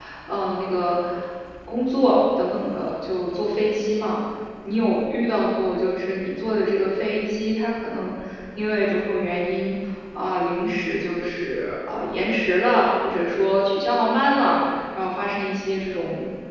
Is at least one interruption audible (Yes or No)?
No